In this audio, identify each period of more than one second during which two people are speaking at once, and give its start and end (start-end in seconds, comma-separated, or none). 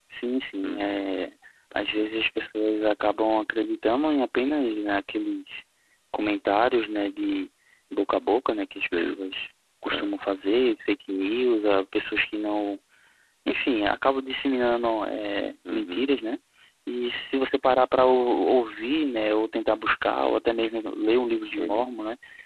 none